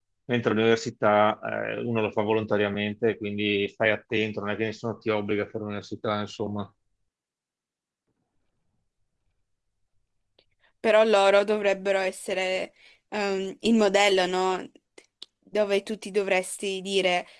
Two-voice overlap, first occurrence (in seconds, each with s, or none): none